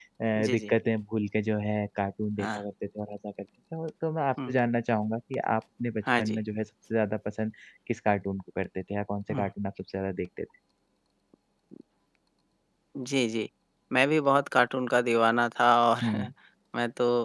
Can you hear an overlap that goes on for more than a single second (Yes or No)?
No